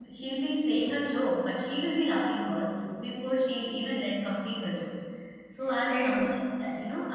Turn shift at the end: No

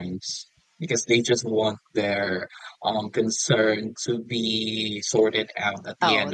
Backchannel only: No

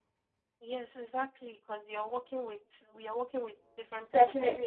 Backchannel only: No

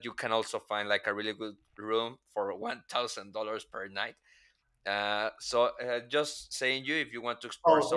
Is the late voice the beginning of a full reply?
Yes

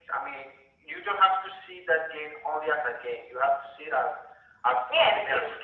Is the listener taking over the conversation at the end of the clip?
Yes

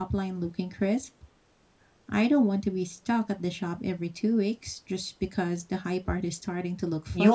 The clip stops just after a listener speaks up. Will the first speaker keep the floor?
No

